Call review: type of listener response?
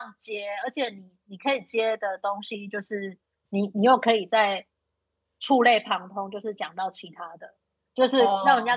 listening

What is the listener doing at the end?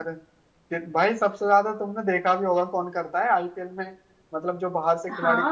taking over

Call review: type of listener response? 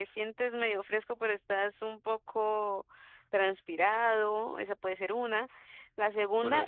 listening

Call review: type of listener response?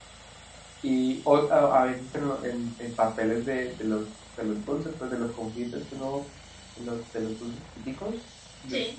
listening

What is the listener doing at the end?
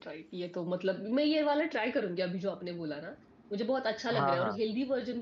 listening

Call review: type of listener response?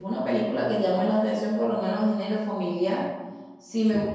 listening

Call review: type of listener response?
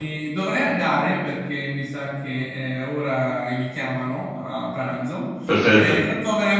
listening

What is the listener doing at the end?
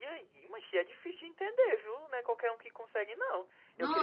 listening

